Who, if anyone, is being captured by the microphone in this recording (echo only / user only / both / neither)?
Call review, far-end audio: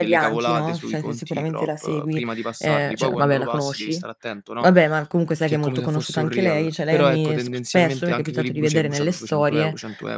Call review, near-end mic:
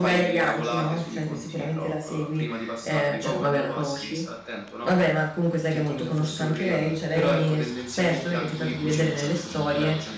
echo only